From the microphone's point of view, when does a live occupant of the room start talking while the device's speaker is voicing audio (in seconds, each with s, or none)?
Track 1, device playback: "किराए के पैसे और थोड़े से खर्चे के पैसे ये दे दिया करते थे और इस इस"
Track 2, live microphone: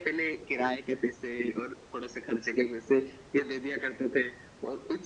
none